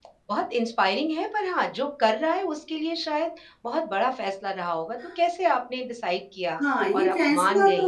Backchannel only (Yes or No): No